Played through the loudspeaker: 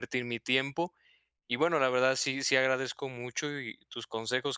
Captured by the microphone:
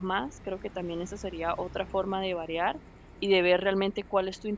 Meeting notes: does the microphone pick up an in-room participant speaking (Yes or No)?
Yes